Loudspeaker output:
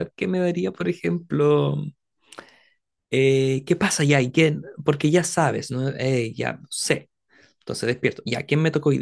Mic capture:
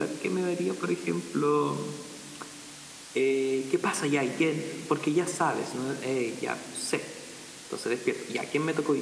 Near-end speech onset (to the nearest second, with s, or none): none